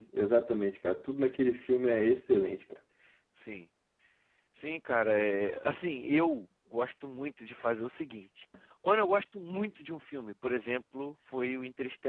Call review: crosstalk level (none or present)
none